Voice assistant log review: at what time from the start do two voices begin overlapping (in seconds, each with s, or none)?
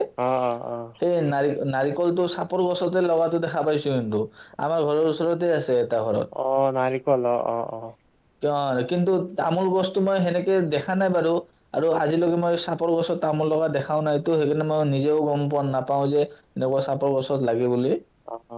none